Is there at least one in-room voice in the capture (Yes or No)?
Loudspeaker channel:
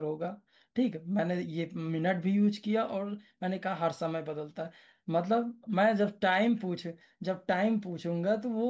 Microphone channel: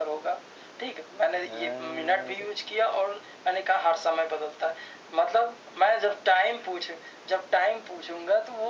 Yes